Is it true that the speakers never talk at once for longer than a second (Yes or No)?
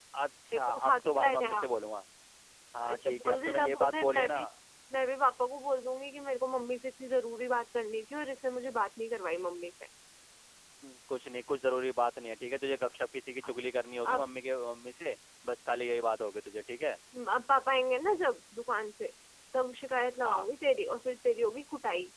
No